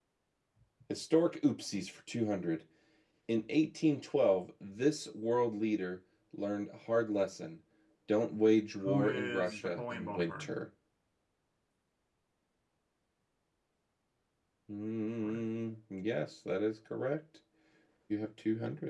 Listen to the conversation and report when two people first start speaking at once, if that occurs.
9 s

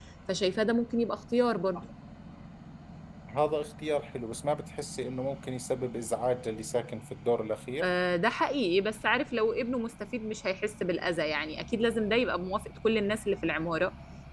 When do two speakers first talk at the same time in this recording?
none

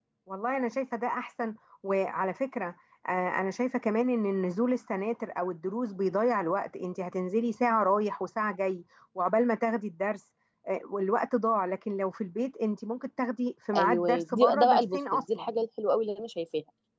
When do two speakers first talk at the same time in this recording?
14 s

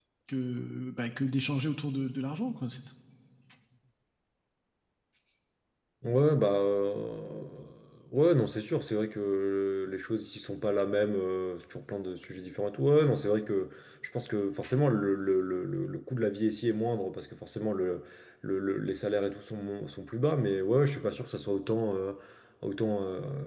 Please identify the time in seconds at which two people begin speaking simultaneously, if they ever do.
none

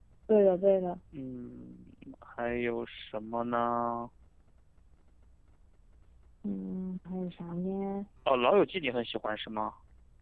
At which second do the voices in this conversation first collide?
none

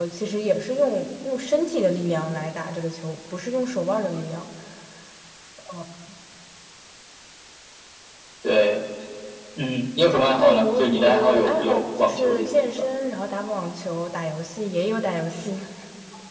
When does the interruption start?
10 s

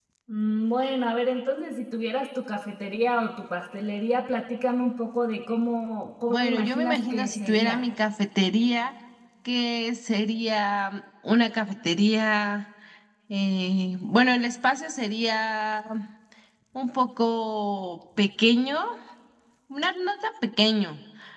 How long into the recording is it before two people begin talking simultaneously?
6 s

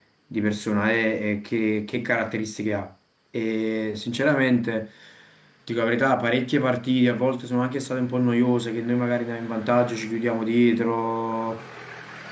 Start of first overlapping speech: none

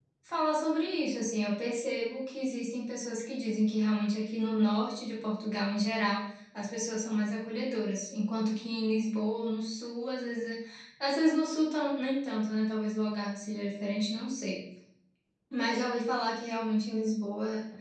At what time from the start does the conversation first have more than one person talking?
none

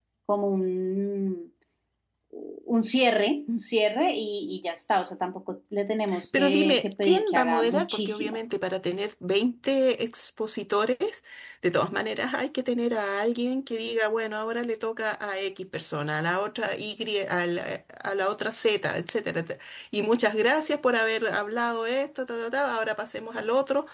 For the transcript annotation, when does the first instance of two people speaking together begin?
6 s

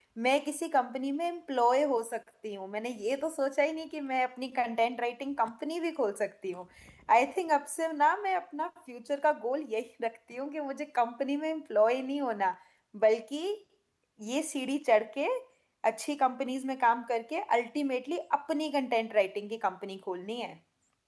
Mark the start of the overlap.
none

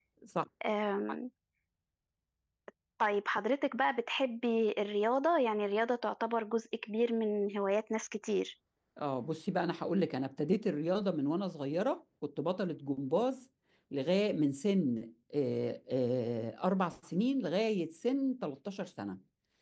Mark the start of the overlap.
none

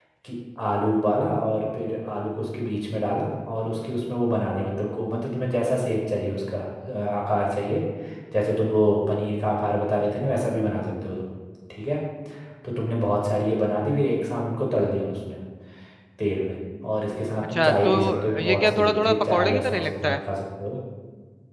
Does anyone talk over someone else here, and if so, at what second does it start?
17 s

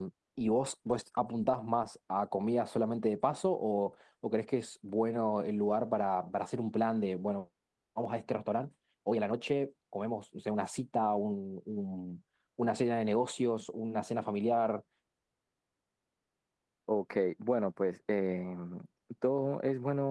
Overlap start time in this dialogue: none

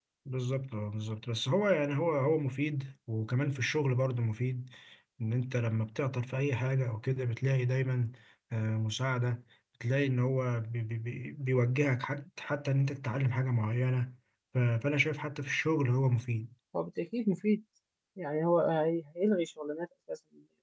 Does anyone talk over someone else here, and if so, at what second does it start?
none

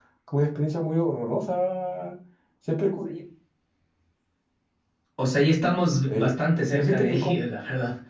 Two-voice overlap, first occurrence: 6 s

